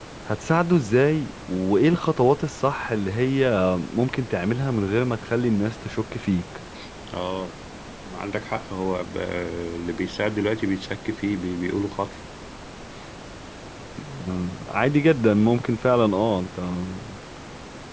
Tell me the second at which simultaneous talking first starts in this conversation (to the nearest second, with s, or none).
none